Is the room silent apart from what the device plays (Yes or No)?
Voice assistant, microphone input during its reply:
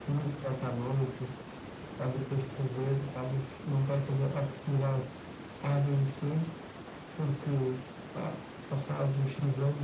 Yes